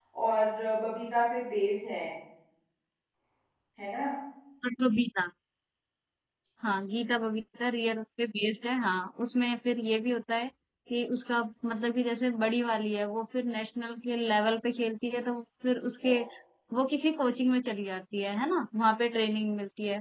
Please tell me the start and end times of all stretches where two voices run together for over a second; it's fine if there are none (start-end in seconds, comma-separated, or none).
none